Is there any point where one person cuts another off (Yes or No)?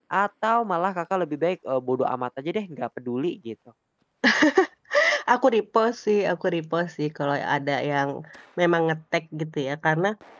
No